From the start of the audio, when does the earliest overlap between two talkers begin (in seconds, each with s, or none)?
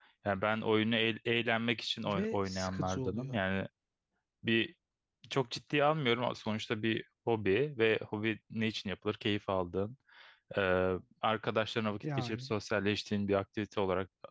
2.1 s